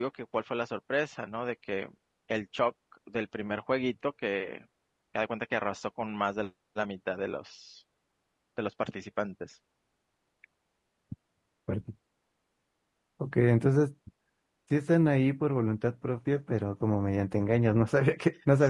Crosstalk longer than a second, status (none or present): none